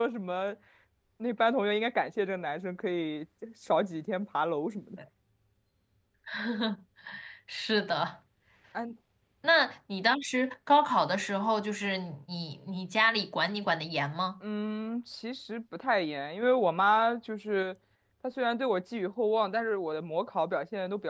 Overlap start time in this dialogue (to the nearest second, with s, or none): none